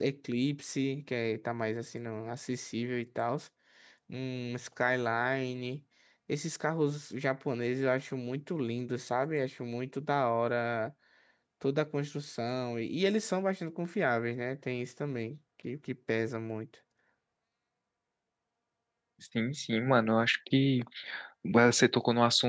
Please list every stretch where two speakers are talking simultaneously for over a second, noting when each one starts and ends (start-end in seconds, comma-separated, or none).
none